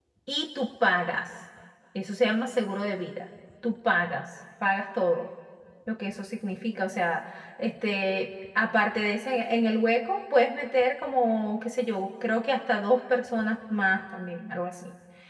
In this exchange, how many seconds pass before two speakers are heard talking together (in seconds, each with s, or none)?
none